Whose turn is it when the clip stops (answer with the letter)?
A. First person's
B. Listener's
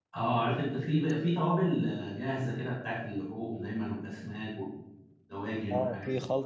B